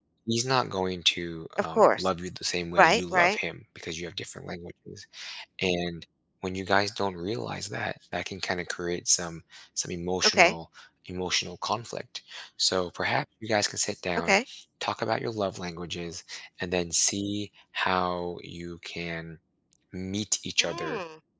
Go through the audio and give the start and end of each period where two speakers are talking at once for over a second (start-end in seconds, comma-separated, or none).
none